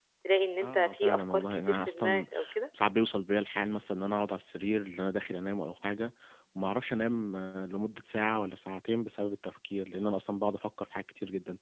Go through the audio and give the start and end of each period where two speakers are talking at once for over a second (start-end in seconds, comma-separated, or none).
0.6-2.2